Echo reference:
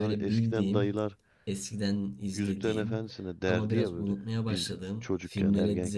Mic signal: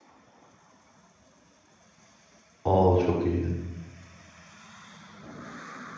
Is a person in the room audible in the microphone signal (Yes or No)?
Yes